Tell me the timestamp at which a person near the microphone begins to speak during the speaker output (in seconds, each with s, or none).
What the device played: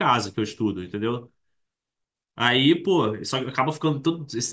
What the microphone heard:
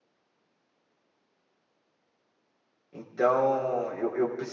2.9 s